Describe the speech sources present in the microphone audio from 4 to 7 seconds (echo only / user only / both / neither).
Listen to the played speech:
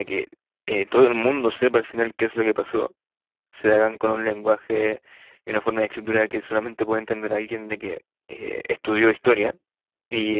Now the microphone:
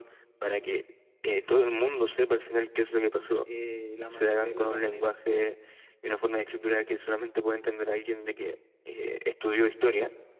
both